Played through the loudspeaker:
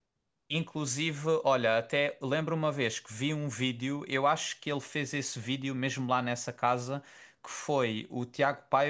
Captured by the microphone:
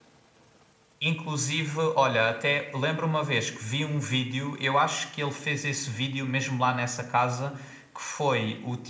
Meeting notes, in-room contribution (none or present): none